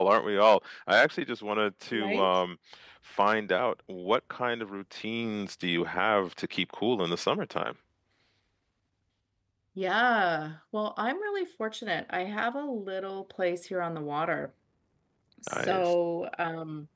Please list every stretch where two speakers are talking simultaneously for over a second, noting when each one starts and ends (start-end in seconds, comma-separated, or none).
none